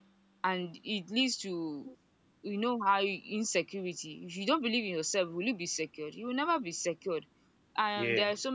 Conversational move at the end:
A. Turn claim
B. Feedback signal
B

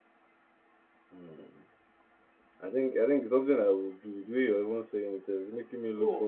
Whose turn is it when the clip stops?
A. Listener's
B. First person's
A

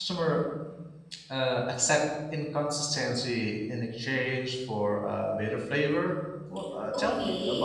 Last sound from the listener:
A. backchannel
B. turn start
B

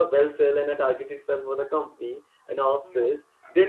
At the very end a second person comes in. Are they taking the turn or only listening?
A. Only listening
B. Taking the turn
A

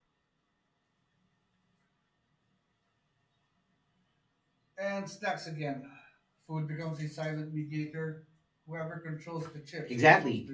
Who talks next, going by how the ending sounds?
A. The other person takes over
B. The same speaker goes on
A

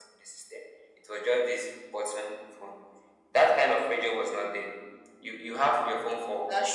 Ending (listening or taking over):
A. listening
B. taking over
A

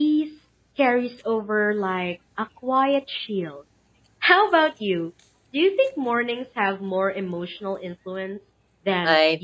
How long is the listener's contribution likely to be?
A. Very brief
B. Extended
B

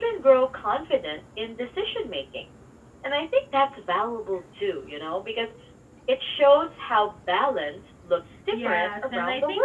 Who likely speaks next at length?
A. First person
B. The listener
B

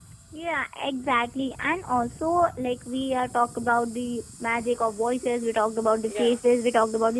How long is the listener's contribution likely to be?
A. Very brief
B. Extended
A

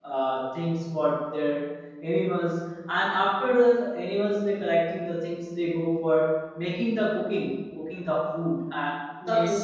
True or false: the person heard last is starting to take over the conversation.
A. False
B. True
A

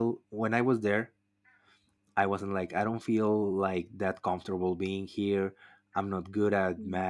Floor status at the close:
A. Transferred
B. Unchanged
B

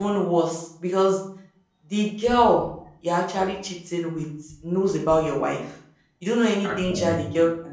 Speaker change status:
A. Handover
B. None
B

